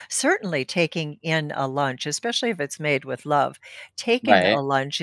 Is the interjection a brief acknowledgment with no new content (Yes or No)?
Yes